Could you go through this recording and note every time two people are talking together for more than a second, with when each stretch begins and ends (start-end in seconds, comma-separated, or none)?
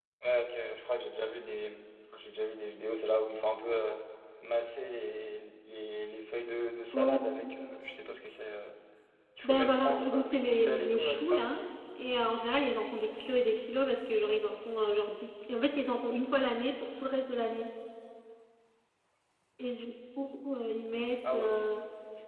9.4-11.4